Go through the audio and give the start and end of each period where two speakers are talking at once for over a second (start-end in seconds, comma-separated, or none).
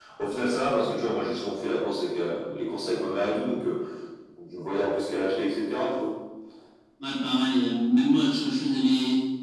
none